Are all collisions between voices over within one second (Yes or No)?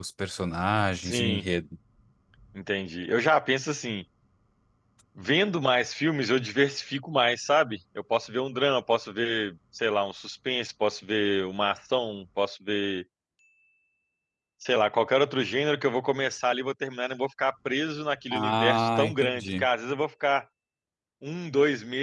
No